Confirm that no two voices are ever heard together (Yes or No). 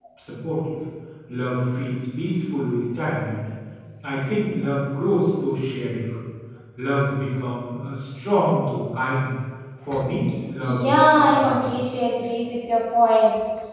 No